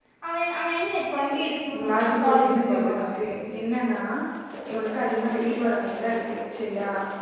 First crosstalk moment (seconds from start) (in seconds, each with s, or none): 1.7 s